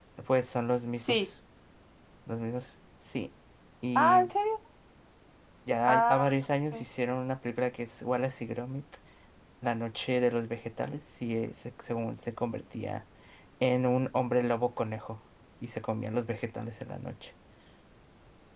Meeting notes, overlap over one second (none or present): none